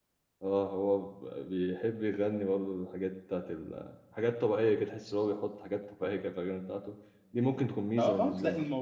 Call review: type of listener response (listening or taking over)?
taking over